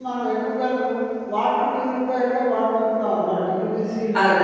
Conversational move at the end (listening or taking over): taking over